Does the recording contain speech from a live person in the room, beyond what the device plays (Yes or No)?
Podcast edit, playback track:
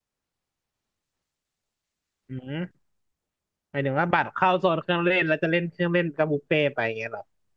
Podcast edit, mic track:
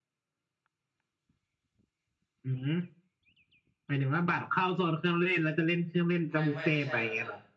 Yes